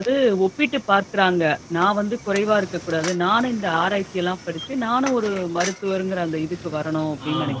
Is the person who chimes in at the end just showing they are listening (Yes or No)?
No